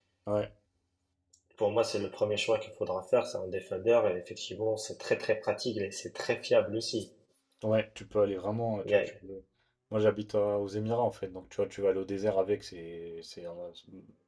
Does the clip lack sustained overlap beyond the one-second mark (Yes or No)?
Yes